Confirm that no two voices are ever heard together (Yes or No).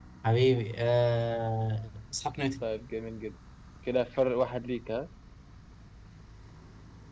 Yes